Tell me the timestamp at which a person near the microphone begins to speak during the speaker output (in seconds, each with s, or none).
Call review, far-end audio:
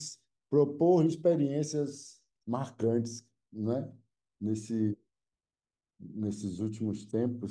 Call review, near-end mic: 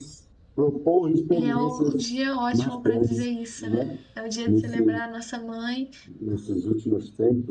1.3 s